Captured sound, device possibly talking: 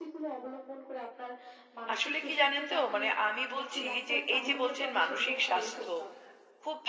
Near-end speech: present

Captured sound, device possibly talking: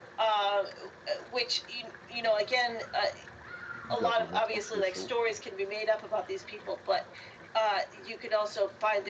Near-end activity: present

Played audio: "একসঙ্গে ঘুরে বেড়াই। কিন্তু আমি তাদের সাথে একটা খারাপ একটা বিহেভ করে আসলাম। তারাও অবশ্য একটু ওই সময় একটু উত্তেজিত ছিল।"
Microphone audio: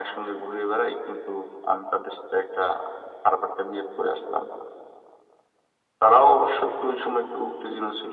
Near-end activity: none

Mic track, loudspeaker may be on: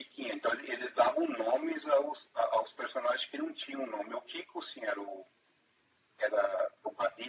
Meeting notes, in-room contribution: none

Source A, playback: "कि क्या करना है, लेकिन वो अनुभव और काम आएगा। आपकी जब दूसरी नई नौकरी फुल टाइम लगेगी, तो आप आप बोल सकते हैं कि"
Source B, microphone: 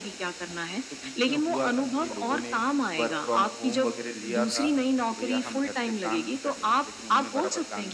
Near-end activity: present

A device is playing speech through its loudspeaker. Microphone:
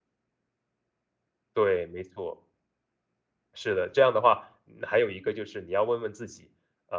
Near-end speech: present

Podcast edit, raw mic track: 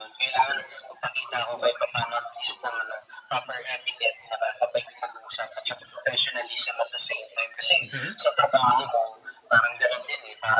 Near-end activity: present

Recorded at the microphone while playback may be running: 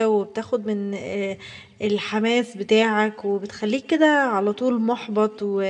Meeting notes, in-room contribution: present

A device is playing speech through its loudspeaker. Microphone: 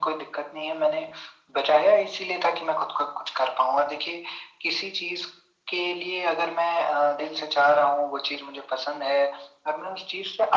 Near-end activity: none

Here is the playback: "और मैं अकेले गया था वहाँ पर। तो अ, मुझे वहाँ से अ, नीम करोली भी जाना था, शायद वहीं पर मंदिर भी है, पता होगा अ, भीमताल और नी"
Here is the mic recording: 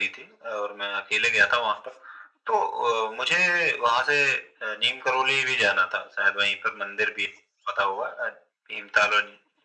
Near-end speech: none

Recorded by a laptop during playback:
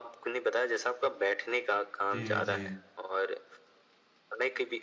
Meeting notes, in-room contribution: present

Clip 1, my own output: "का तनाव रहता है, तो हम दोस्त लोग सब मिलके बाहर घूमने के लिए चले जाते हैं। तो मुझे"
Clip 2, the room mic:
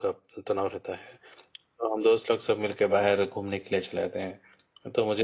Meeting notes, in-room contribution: none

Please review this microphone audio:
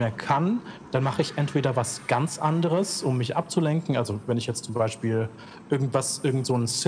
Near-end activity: none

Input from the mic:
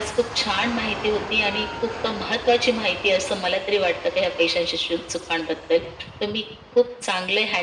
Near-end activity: none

